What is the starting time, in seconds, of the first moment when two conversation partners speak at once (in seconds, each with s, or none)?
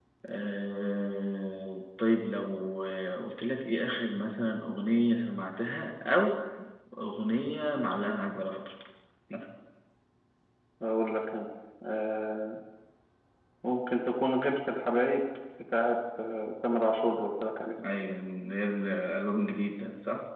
none